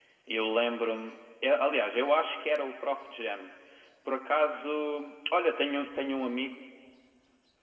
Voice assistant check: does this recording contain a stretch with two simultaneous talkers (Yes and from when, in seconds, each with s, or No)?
No